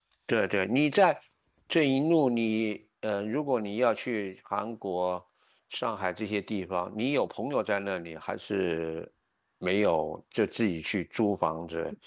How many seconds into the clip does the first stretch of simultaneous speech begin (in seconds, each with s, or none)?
none